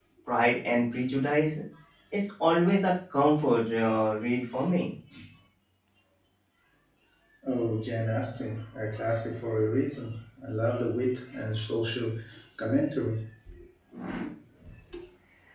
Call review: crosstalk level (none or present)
none